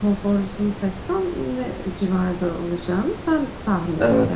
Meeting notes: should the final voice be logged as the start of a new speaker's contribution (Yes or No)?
Yes